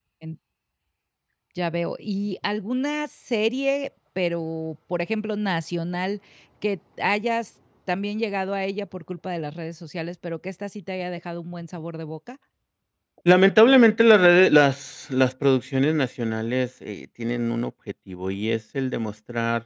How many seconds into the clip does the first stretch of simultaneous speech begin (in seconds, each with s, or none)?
none